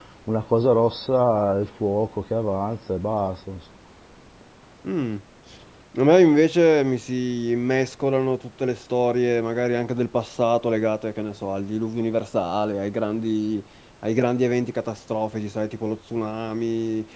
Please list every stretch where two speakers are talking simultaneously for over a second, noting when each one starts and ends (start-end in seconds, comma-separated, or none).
none